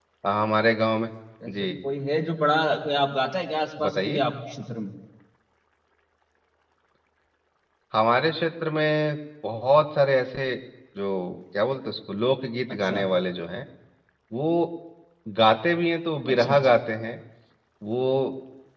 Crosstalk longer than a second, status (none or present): none